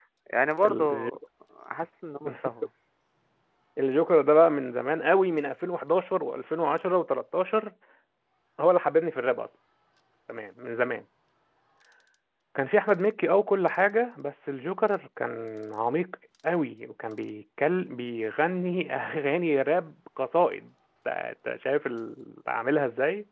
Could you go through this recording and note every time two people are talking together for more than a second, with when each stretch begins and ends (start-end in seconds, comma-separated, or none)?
none